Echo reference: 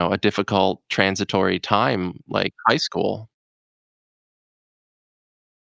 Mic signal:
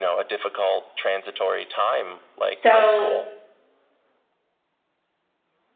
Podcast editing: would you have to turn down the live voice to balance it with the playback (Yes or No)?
Yes